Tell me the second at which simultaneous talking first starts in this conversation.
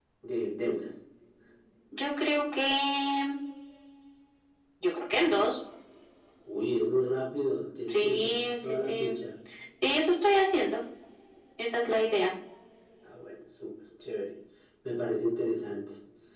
7.9 s

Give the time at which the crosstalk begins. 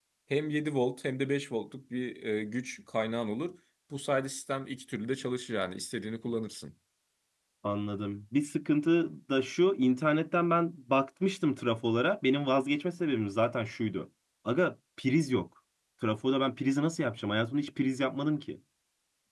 none

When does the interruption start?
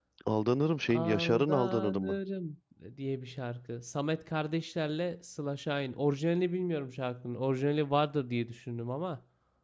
0.9 s

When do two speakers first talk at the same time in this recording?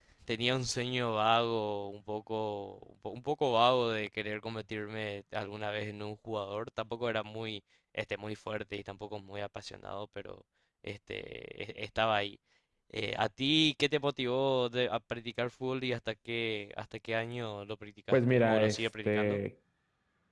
18.1 s

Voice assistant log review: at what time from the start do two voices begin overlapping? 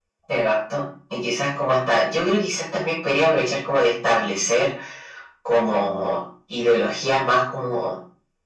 none

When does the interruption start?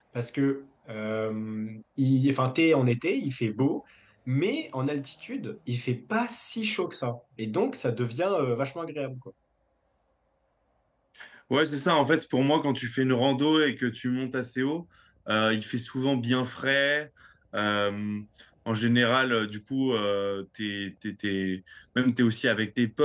none

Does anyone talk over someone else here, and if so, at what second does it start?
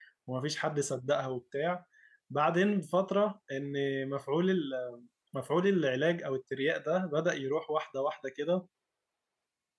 none

